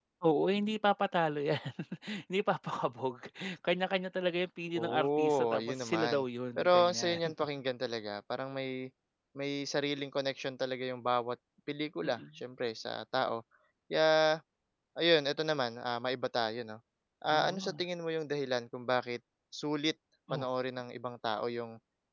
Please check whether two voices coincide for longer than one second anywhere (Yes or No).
Yes